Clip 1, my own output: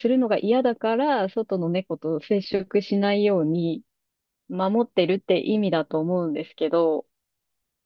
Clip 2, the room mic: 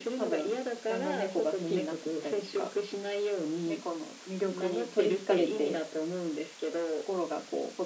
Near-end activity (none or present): present